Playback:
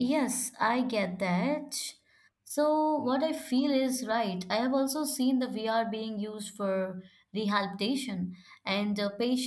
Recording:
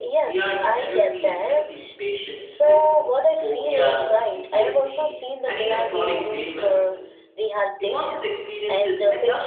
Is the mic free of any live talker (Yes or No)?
No